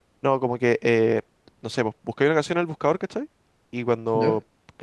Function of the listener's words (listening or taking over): listening